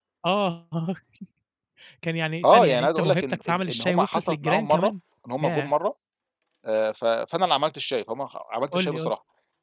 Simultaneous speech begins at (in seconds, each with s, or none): 2.4 s